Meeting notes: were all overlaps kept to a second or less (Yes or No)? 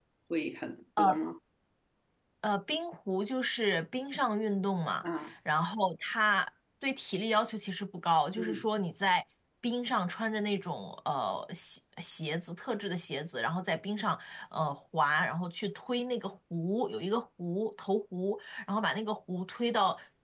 Yes